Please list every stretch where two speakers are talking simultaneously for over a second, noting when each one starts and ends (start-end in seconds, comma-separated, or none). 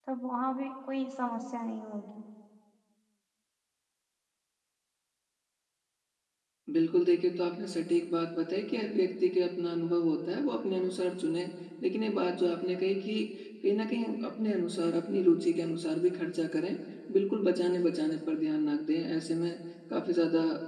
none